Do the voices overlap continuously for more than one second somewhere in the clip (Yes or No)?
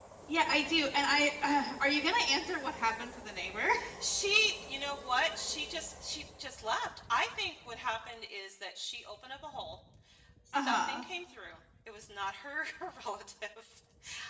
No